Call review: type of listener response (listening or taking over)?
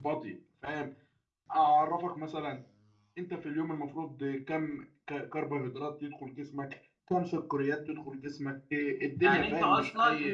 taking over